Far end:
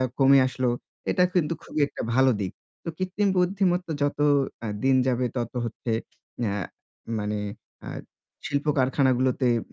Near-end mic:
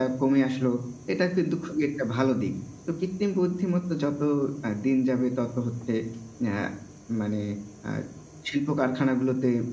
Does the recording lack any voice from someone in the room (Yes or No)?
Yes